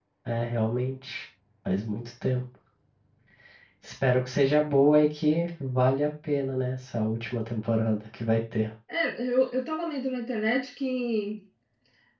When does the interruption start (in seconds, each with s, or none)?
none